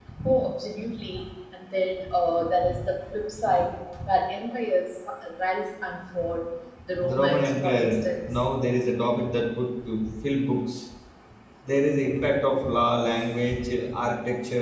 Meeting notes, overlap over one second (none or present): present